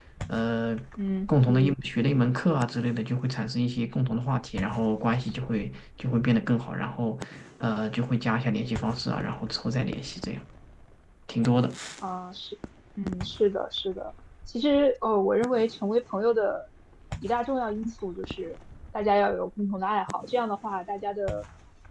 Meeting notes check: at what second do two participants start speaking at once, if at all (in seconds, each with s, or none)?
none